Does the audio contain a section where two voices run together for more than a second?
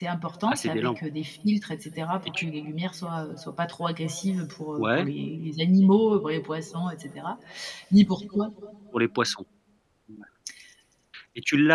No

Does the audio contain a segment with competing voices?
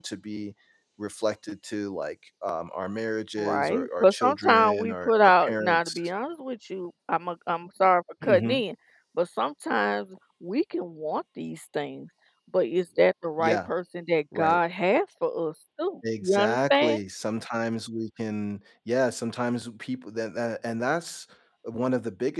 Yes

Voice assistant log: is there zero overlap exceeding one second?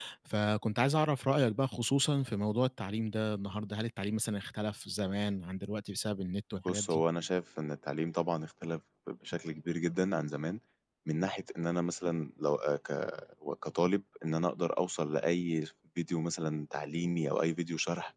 Yes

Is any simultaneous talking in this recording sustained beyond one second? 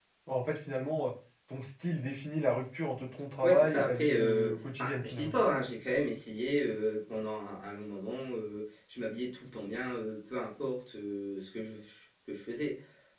Yes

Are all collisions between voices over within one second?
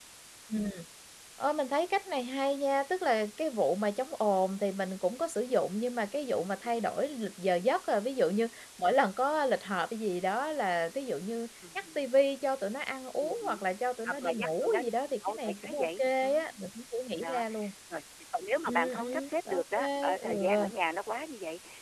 No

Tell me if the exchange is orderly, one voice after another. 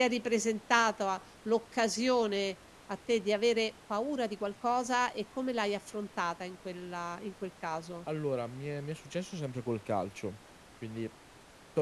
Yes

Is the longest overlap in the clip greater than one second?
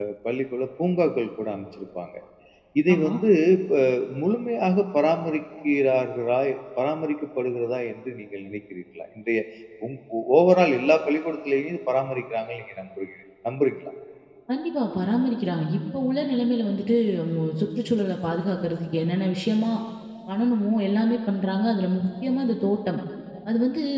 No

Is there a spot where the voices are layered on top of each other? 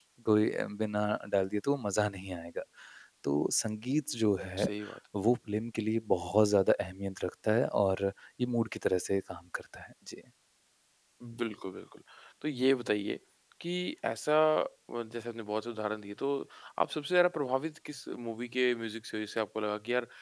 No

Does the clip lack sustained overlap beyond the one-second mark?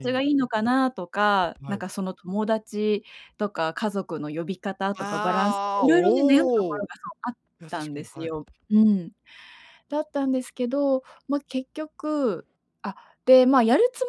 No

